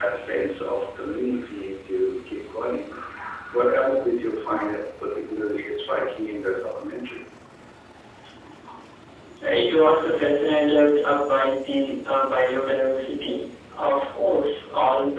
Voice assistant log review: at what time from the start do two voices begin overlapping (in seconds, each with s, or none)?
none